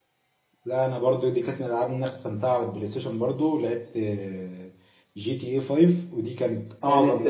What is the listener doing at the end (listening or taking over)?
listening